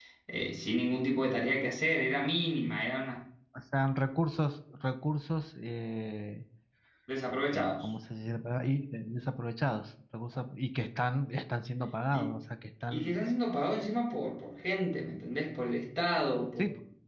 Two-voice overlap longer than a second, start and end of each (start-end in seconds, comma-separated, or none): none